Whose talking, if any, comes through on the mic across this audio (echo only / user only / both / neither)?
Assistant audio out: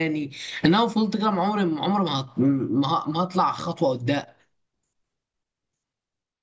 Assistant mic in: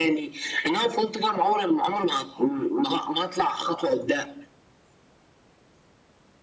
echo only